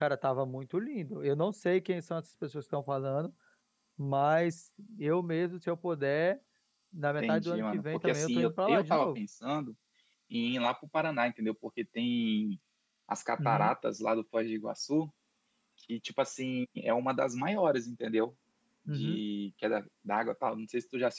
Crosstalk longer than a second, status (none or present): present